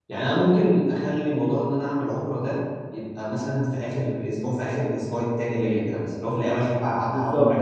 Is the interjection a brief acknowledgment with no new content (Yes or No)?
No